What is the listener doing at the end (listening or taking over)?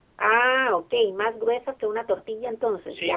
taking over